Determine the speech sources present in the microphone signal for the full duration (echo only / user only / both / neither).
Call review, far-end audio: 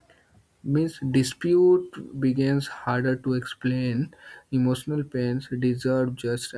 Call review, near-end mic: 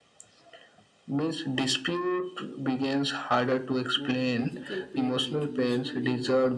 both